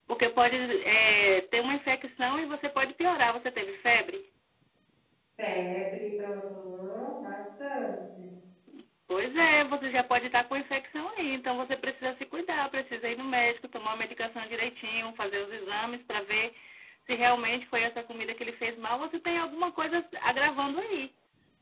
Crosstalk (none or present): none